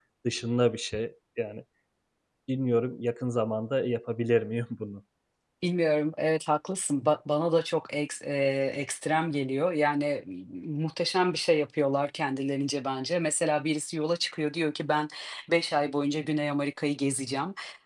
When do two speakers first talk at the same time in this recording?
none

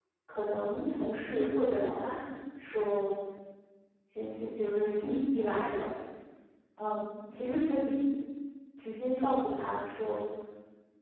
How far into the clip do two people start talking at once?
none

